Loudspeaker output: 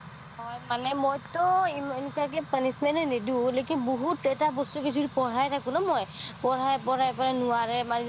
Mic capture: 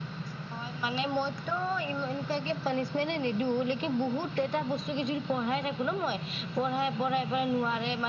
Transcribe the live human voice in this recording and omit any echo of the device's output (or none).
none